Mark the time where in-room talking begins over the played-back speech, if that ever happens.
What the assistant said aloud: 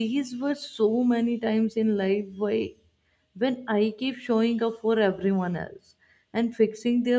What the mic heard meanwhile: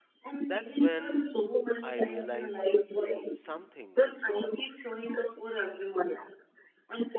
0.4 s

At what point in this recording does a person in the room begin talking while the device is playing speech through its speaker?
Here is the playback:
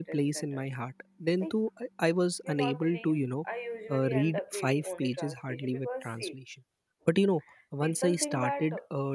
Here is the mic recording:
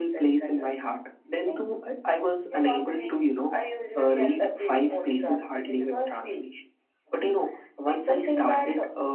none

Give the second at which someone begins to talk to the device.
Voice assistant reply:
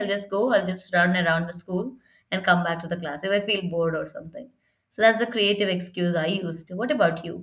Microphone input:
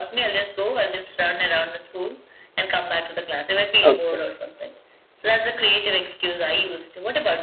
3.8 s

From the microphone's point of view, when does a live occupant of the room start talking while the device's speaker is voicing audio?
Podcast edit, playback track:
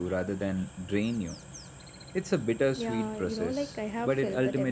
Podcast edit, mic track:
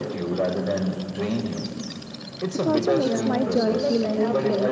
2.5 s

